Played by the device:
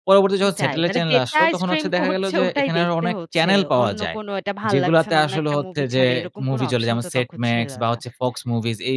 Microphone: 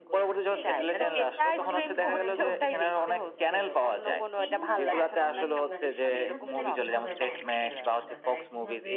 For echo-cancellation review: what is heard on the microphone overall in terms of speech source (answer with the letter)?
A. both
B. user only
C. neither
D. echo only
A